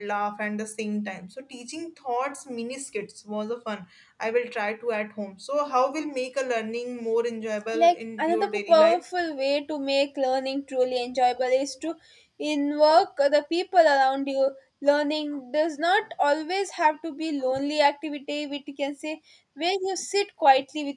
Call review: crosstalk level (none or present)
present